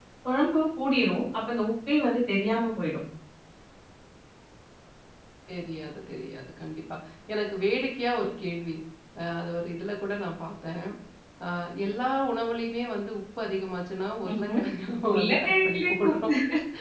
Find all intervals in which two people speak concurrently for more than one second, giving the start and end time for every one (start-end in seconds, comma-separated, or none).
15.1-16.3